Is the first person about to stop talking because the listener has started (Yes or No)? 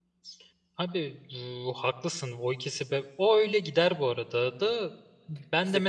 No